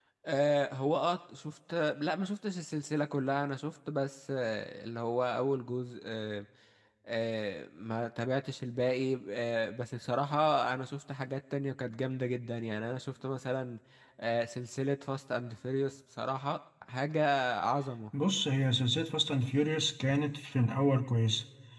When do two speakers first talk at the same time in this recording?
none

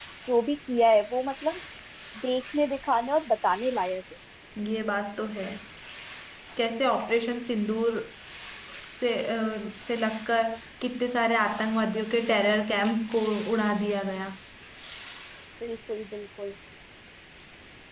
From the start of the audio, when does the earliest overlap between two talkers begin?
none

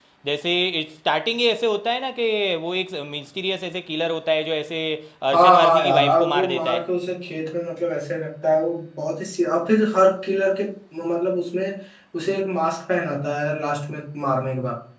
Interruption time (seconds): 5.3 s

